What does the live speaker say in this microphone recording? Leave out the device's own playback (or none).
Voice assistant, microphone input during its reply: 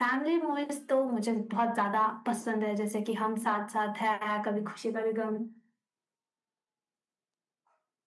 none